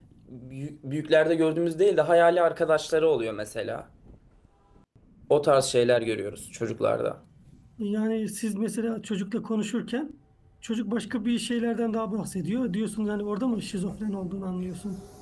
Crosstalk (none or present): none